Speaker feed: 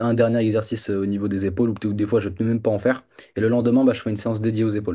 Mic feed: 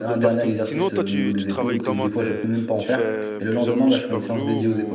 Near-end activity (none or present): present